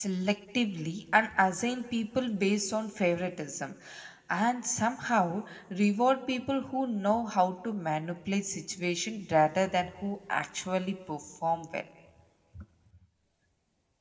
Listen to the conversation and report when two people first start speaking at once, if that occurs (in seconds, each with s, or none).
none